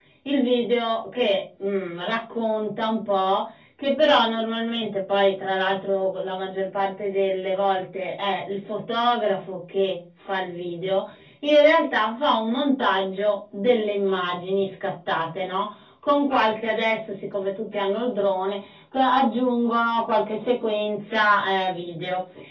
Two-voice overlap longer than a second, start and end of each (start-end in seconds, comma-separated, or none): none